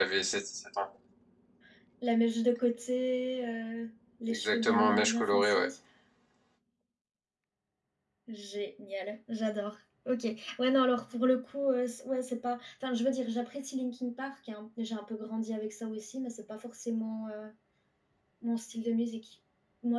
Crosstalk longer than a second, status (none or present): present